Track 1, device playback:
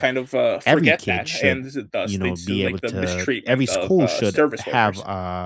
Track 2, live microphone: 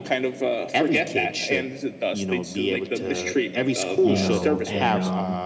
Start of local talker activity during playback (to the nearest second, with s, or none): 4 s